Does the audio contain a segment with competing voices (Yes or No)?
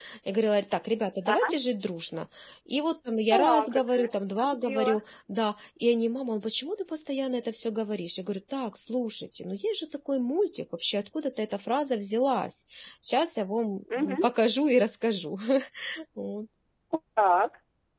Yes